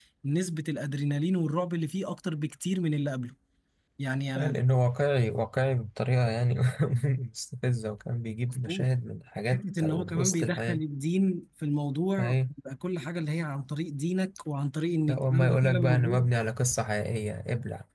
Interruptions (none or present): present